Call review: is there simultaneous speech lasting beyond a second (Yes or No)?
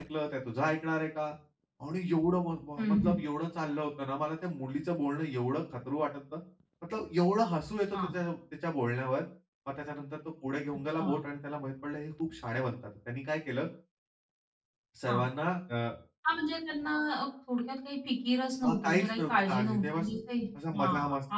Yes